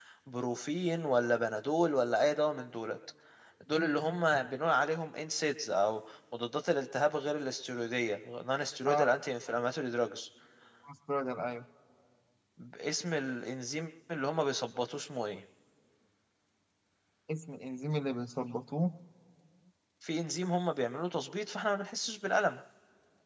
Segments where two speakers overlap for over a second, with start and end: none

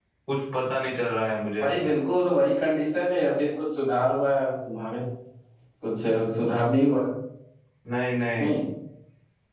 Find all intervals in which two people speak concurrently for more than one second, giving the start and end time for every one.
none

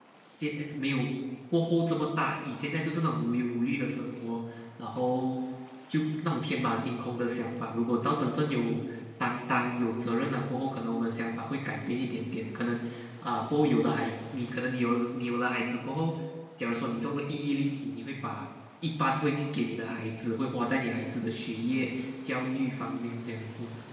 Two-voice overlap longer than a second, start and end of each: none

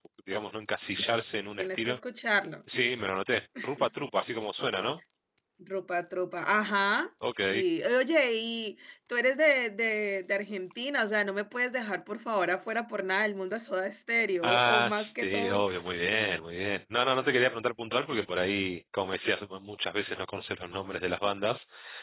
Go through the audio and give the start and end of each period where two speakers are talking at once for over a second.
14.4-15.6

